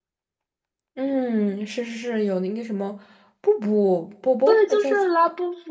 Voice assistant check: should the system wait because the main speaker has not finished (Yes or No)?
No